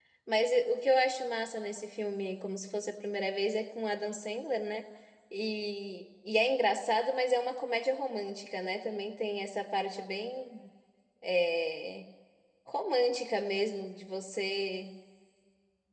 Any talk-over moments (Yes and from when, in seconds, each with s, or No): No